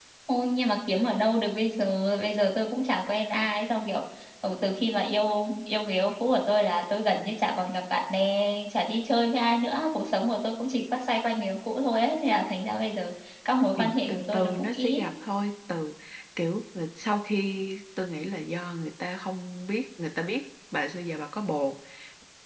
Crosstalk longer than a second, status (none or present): present